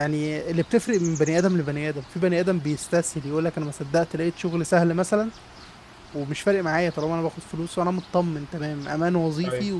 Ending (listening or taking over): listening